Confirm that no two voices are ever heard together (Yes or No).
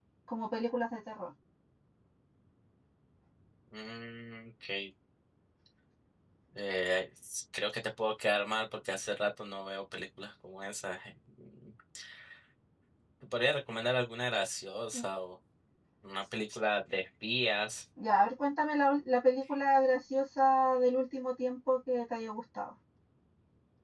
Yes